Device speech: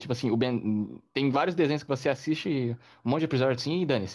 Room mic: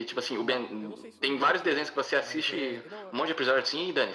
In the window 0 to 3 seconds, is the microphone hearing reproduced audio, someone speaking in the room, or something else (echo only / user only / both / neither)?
both